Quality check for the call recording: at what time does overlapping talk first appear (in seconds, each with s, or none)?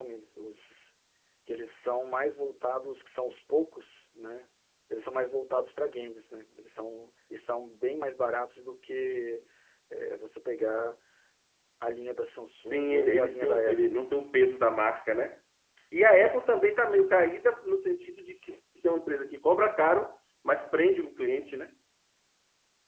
12.6 s